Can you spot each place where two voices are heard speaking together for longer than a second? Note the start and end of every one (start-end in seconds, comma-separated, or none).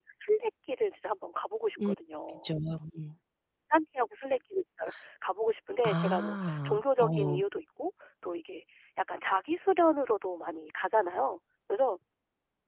5.8-7.4